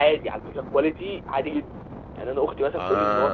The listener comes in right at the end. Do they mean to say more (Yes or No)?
No